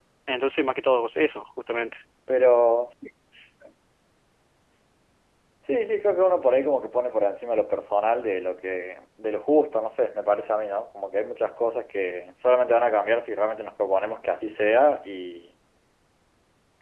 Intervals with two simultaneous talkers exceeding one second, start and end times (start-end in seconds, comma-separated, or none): none